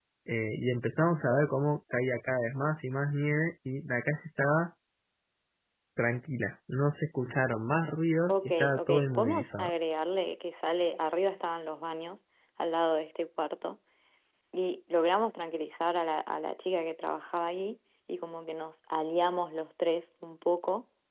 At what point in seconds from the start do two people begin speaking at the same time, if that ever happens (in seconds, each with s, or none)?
8.3 s